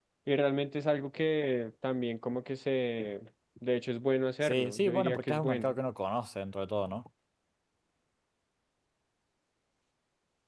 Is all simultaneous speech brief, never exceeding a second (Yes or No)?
No